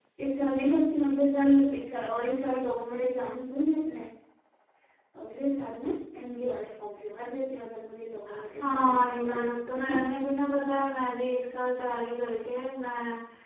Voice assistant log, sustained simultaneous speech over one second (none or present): present